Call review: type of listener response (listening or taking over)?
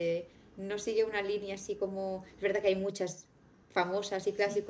listening